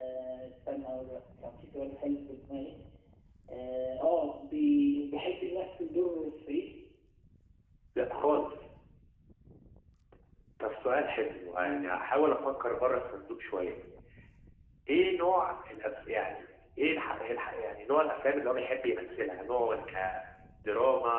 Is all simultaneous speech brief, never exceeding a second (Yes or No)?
Yes